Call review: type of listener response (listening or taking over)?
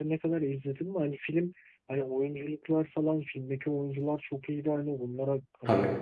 listening